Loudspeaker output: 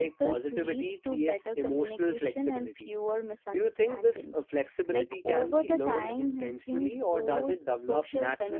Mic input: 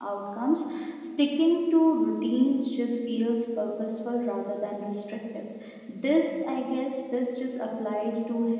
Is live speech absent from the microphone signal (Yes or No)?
No